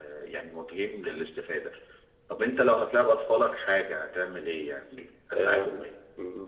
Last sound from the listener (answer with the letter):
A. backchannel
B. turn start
B